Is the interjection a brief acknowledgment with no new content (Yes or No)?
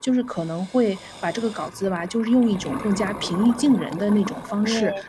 Yes